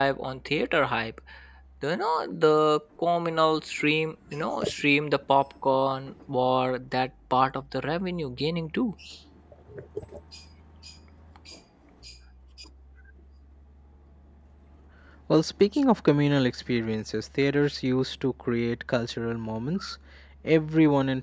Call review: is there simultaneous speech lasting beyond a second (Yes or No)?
No